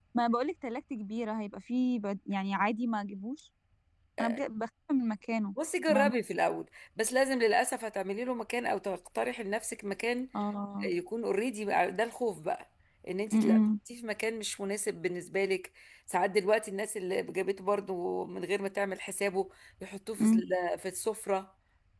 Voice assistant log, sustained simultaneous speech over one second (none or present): none